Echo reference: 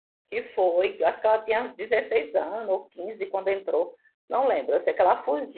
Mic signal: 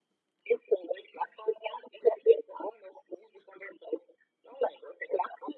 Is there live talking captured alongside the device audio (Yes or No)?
No